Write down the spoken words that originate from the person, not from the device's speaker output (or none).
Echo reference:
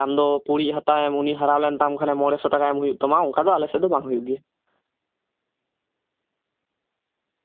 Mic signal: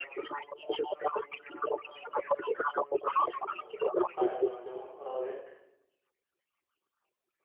ᱦᱳᱭ ᱟᱸᱡᱚᱢ ᱟᱸᱡᱚᱢ ᱨᱚᱲ ᱵᱤᱱ᱾